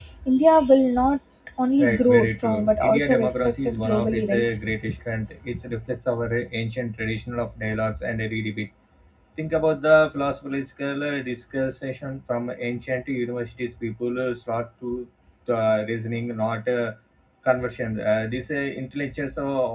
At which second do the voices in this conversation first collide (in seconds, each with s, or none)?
1.8 s